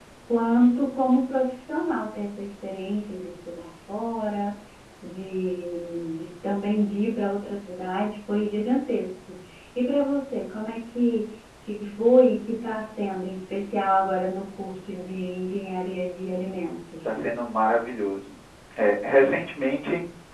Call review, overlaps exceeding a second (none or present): none